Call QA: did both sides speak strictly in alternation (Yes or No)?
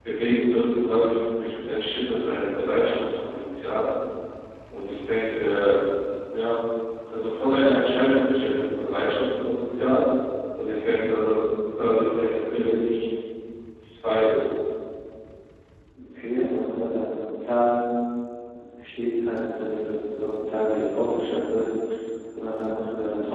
Yes